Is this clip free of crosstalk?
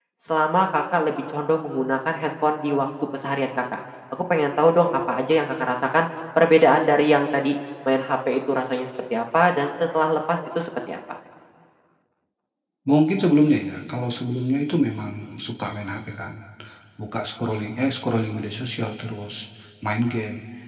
Yes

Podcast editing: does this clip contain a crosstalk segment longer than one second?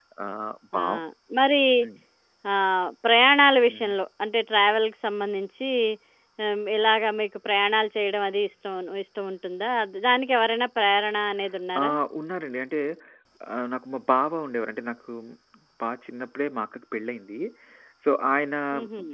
No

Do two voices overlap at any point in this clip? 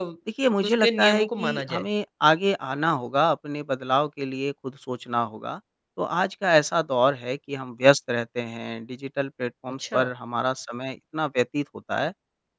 Yes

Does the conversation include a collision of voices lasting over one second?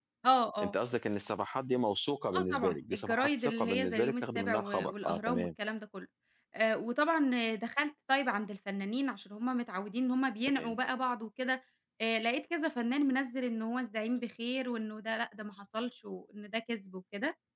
Yes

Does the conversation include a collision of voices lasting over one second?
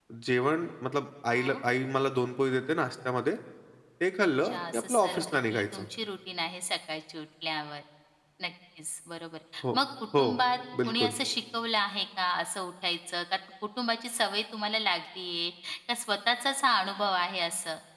Yes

